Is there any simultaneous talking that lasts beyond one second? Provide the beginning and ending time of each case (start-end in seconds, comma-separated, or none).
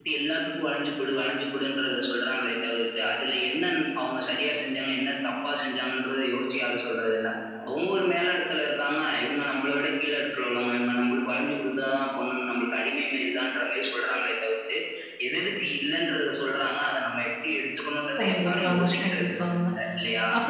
18.2-19.6